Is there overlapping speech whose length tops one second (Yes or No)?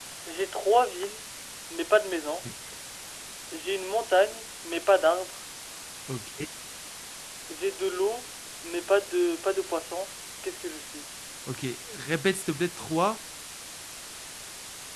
No